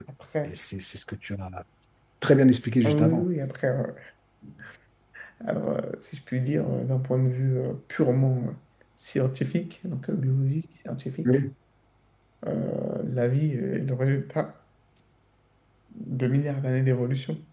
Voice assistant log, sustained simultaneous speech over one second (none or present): none